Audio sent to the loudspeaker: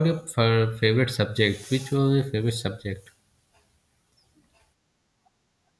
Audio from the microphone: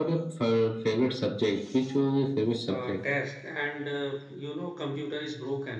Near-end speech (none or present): present